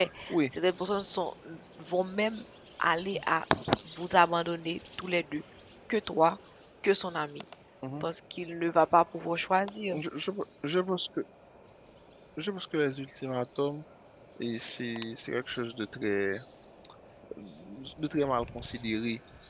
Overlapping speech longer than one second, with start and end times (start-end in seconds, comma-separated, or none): none